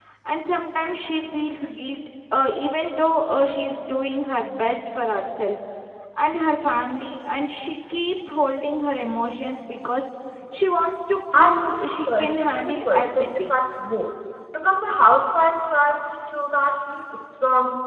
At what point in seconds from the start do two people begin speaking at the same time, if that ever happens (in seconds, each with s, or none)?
11.3 s